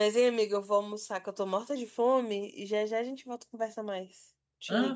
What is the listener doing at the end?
taking over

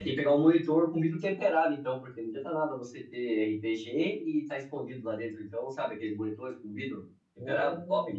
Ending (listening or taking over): taking over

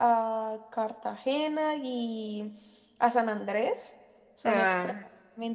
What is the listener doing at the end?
listening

